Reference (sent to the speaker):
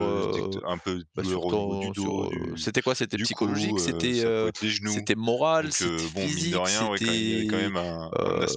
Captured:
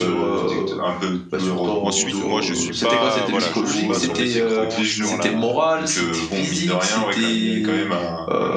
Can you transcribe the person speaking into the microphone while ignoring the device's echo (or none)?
Ensuite, moi, je suis pas voilà, je suis pas sur mes écrans sur la